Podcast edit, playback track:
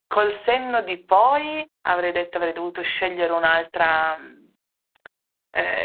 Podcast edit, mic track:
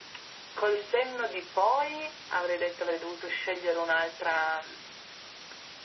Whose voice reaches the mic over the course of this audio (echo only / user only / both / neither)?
echo only